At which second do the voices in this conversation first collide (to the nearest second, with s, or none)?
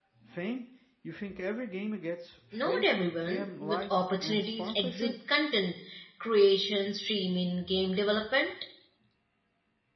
3 s